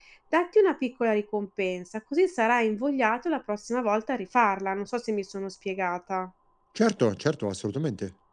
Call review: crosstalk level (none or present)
none